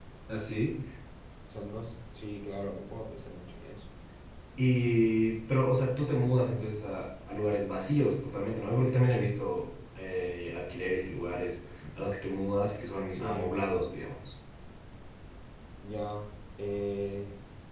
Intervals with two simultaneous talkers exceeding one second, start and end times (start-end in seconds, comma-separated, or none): none